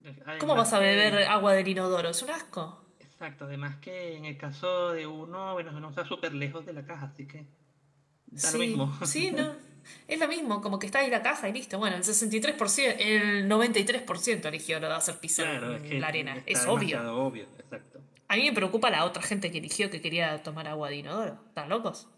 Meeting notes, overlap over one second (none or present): present